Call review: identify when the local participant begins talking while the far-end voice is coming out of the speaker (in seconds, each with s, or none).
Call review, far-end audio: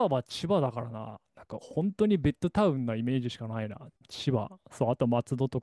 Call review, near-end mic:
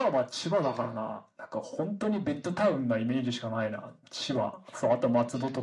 none